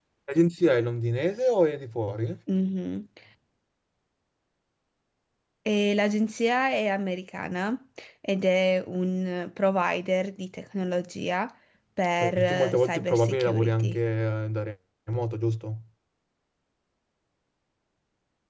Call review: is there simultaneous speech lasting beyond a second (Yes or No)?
Yes